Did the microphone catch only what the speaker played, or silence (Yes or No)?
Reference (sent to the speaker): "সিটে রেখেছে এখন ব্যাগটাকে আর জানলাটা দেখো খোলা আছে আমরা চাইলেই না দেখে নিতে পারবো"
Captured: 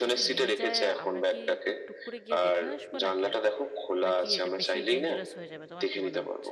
No